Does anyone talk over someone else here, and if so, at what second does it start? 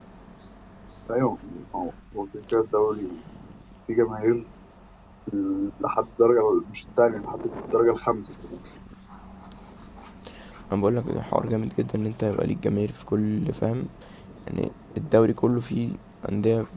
none

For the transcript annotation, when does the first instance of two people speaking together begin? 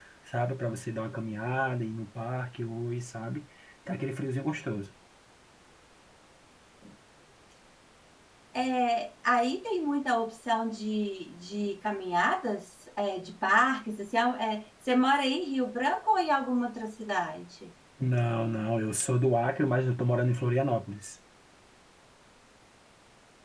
none

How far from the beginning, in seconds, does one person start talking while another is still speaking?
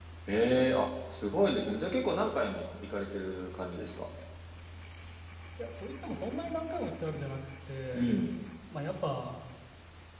none

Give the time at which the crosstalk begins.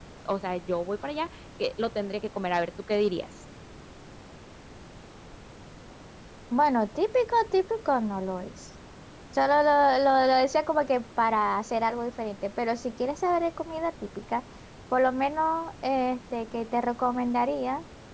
none

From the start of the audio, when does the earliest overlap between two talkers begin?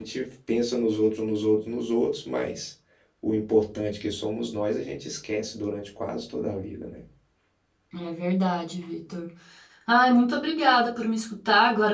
none

